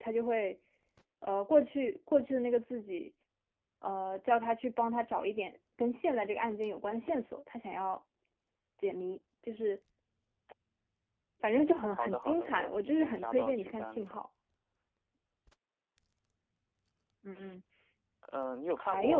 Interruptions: present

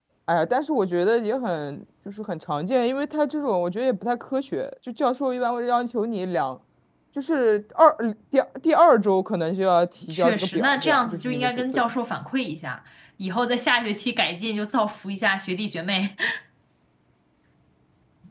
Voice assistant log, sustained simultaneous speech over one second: present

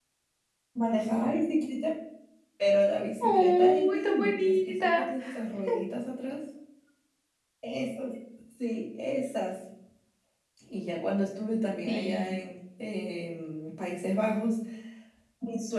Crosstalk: present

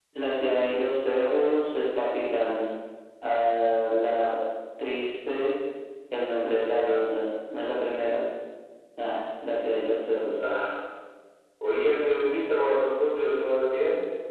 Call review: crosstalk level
none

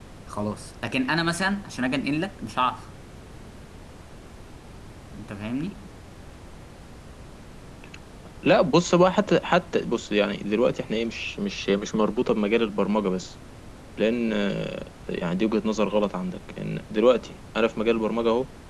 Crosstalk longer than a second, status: none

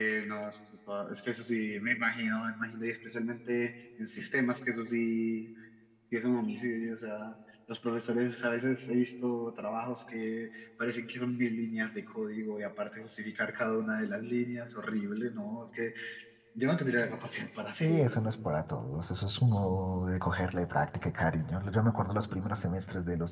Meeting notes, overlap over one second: none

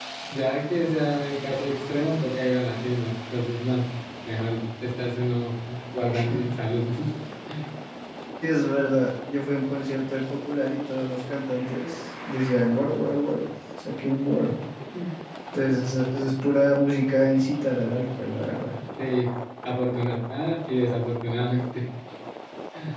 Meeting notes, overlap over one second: none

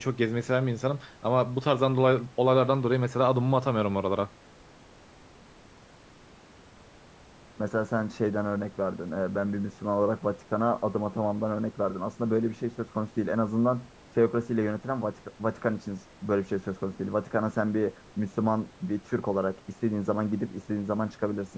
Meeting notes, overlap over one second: none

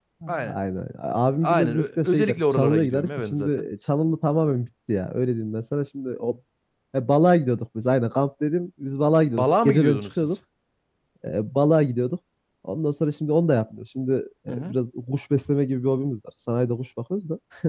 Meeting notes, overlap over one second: present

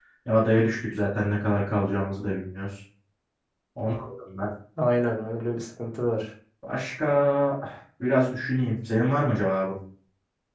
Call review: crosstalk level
none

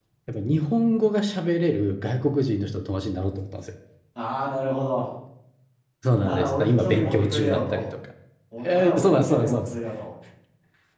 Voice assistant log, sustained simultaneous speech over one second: present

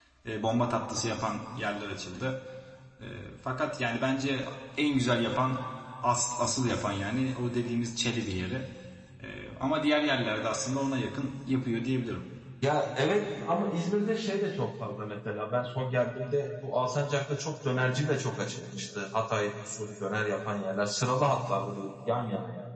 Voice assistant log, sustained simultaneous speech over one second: none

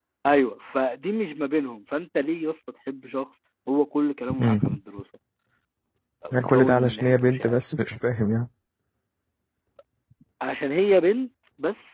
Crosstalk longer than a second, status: present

